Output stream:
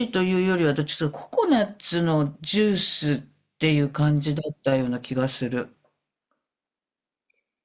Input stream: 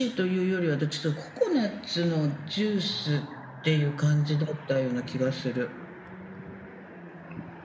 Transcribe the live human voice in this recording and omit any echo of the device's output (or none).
none